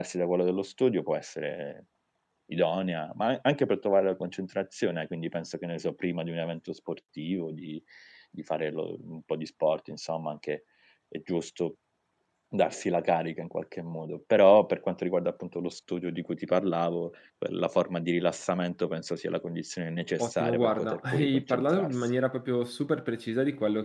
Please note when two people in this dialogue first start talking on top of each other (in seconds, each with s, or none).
20.2 s